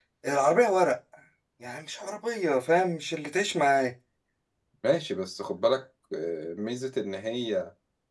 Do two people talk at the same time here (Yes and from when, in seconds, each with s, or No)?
No